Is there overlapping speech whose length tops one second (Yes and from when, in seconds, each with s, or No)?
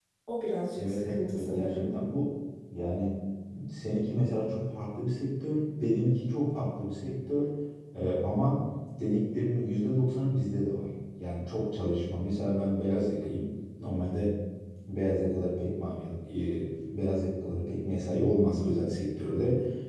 Yes, from 0.8 s